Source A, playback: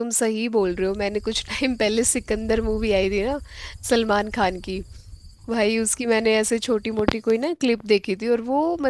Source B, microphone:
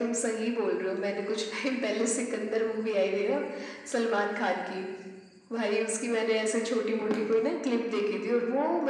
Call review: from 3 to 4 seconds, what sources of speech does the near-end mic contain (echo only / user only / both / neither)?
echo only